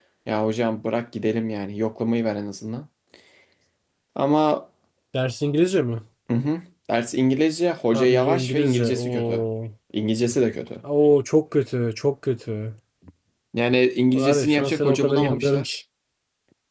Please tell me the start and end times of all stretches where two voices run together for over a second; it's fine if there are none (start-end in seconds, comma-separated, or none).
7.9-9.4, 14.1-15.8